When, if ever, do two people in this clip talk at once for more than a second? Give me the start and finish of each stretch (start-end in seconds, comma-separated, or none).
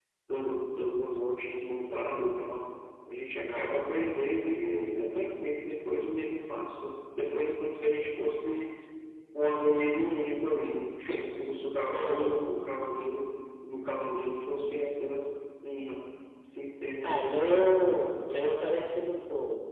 none